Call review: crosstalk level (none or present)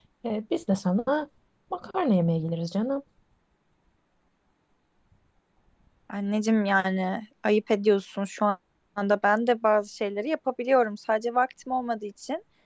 none